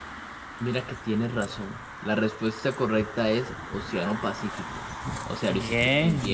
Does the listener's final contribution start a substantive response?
Yes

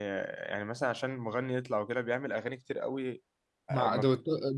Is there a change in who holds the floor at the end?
Yes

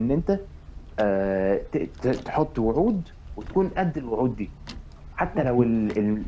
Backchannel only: Yes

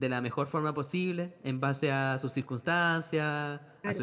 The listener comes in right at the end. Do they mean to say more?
No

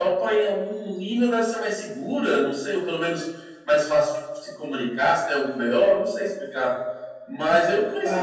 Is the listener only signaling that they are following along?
No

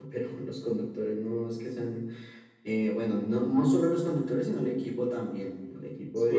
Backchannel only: No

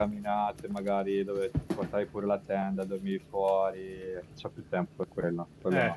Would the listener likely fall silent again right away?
No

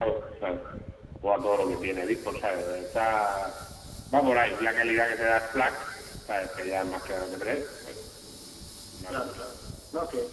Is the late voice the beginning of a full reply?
Yes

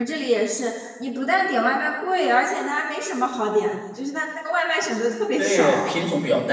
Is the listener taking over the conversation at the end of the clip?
Yes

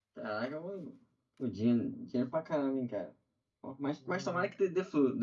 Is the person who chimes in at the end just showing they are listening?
Yes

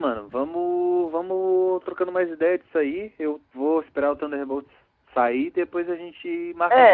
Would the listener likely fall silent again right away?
No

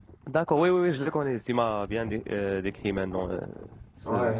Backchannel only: No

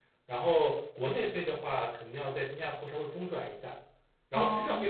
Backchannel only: Yes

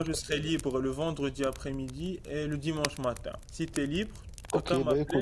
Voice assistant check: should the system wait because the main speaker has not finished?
No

